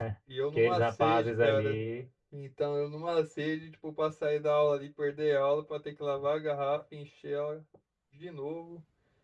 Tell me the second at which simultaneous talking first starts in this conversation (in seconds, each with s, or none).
0.6 s